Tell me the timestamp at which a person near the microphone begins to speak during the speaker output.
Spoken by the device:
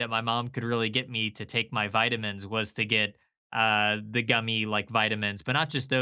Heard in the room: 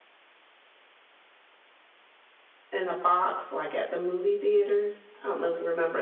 2.7 s

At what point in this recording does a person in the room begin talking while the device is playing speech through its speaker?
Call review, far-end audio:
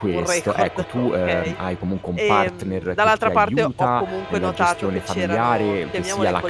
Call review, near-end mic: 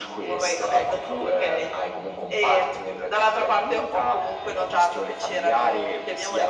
none

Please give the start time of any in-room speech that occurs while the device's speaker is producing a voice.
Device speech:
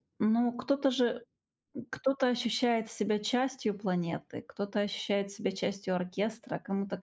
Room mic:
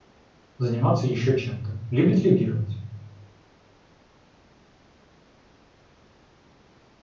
0.6 s

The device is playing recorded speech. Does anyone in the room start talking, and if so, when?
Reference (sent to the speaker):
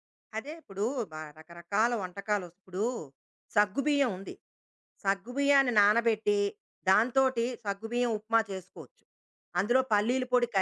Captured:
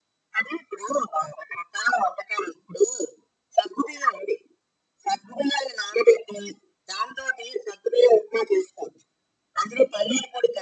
none

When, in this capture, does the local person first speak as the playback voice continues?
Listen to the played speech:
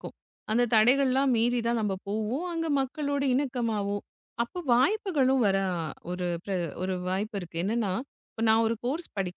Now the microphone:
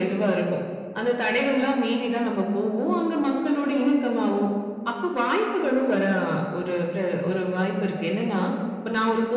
none

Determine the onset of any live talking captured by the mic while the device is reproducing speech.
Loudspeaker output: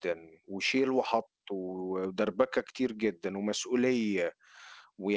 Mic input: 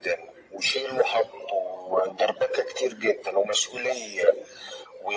none

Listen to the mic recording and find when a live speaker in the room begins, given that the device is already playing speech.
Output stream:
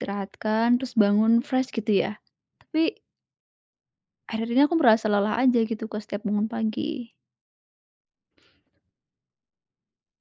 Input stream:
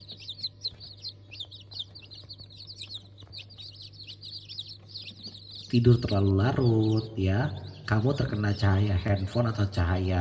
5.7 s

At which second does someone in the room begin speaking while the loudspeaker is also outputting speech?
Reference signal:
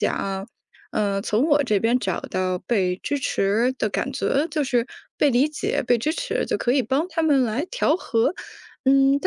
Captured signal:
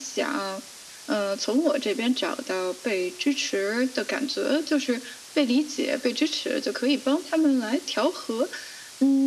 none

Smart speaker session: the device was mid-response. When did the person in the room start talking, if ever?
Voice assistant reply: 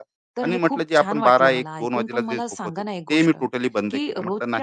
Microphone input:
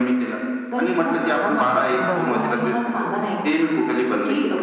2.1 s

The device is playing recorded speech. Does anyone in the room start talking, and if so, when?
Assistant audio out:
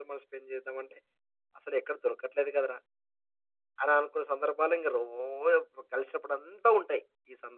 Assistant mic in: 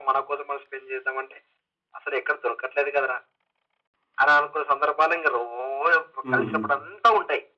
6.3 s

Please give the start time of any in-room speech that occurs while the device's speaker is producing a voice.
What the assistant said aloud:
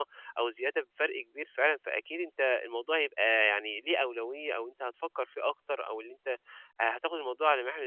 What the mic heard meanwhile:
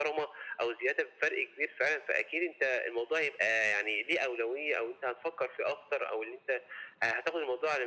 none

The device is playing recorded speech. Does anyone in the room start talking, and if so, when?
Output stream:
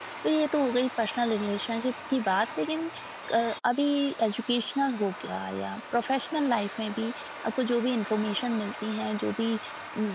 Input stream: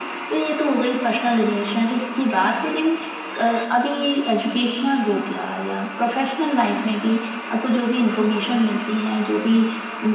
none

